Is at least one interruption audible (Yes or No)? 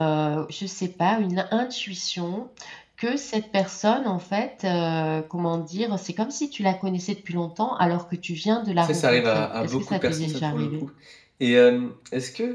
Yes